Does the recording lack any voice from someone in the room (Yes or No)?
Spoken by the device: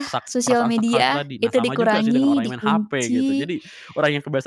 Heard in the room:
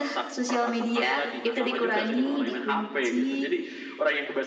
Yes